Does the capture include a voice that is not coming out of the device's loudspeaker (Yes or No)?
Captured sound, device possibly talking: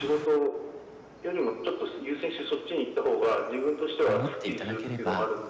Yes